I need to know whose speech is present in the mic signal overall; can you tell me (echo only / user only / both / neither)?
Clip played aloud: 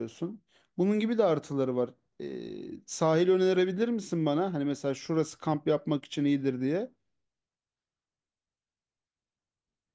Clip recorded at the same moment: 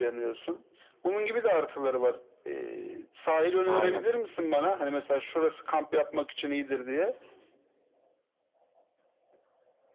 both